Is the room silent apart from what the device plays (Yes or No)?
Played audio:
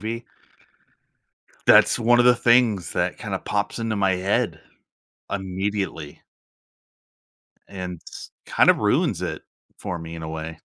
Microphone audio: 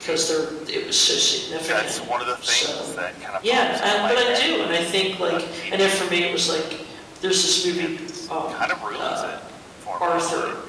No